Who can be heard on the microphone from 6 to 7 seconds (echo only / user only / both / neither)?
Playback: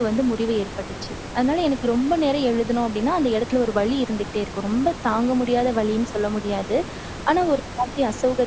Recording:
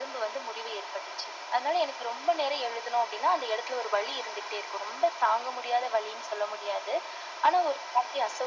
echo only